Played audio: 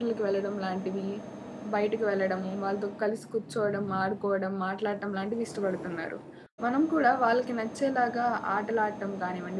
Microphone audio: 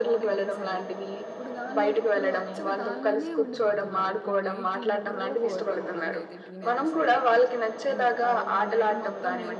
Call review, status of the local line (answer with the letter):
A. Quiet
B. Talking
B